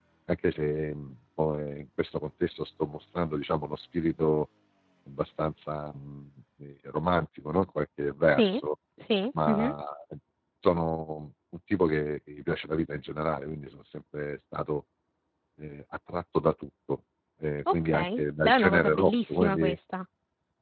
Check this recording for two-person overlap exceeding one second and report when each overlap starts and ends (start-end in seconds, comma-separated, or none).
17.7-19.8